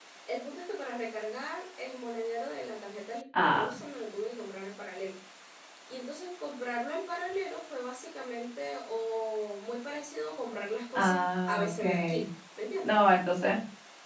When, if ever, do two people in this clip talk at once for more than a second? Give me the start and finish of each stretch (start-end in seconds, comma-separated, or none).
10.9-12.3